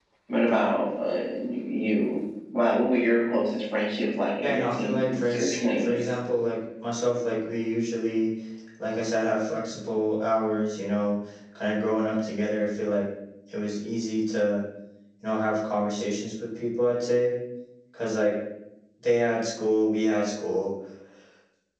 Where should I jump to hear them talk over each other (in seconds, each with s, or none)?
4.4 s